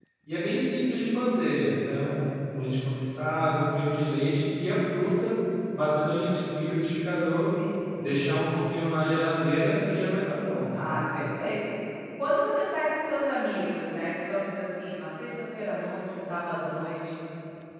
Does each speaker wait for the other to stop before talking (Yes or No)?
Yes